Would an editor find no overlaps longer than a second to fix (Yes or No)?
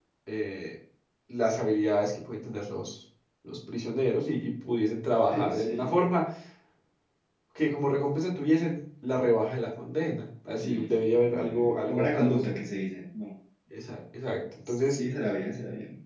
No